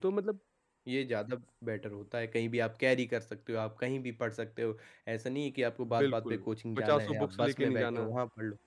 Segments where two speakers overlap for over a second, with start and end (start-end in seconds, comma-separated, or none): 6.8-8.1